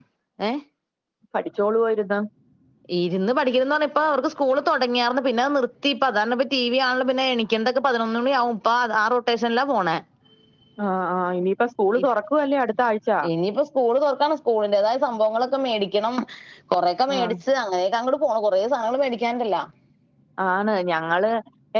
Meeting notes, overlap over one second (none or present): none